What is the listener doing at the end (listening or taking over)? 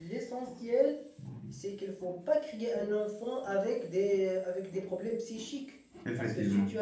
listening